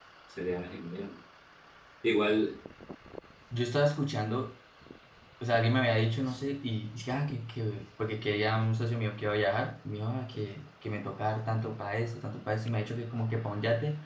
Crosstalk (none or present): none